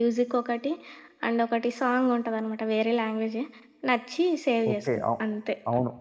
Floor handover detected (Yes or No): Yes